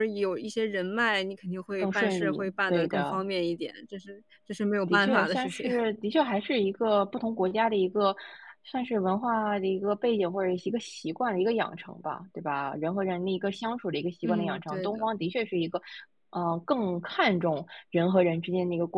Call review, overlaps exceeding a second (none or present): present